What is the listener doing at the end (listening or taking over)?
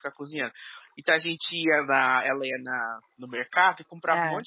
listening